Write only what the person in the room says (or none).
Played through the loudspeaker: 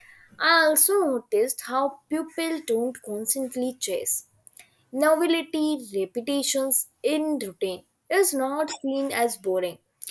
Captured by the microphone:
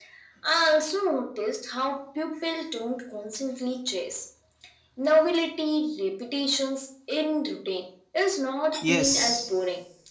Yes,